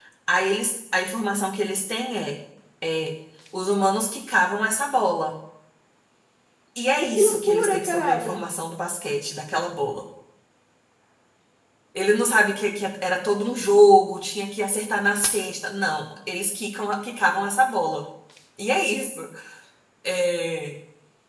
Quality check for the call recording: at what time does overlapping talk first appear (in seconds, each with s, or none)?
7.0 s